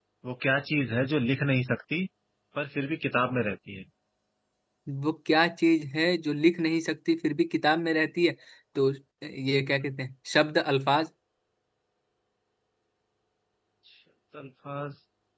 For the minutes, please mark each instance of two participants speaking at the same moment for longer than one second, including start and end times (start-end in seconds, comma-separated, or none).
none